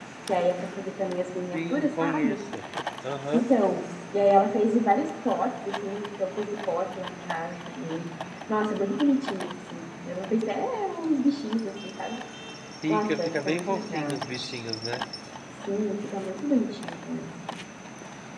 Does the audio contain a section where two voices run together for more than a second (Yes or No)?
Yes